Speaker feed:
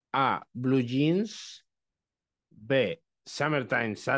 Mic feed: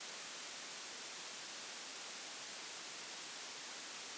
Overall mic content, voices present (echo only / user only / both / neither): neither